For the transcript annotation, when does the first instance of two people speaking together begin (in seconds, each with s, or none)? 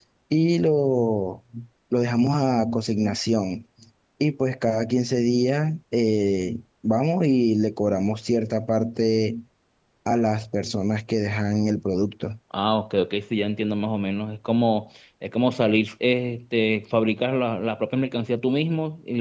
none